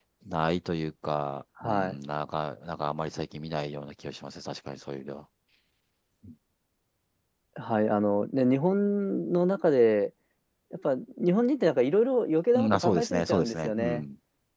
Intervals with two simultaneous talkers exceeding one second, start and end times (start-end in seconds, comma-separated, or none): 12.6-14.0